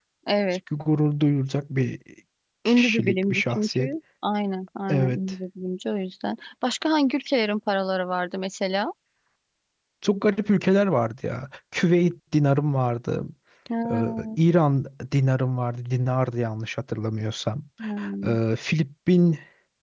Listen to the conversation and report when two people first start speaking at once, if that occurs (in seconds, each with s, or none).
2.6 s